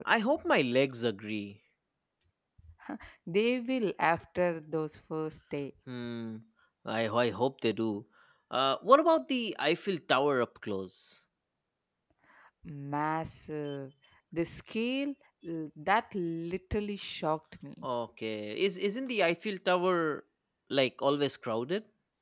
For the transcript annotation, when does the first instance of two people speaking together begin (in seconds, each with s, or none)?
none